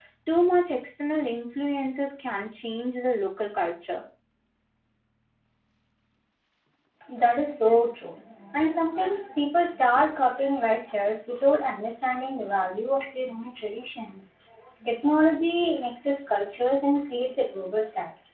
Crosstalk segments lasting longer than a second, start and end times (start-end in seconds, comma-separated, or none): none